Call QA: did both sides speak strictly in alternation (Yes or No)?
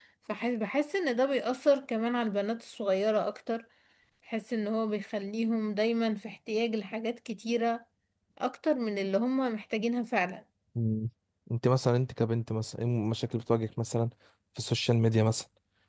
Yes